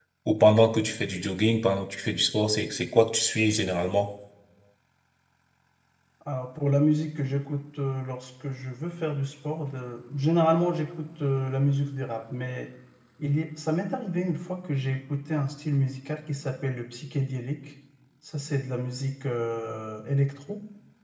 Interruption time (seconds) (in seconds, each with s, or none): none